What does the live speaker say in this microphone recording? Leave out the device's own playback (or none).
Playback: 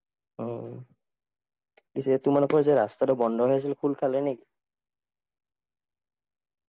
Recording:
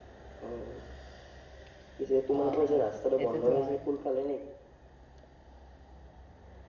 অ-অ, এইটোতো হয়।